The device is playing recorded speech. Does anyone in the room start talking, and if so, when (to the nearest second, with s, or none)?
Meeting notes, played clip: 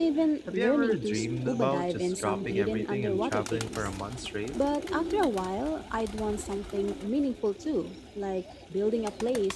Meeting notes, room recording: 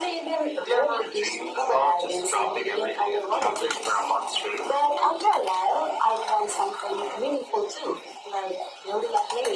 none